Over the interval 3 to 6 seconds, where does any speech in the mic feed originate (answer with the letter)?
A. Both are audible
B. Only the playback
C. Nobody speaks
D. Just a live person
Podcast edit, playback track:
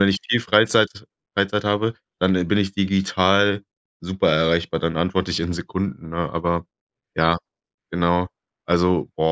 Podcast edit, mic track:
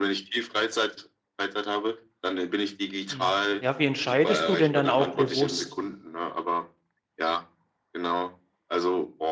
A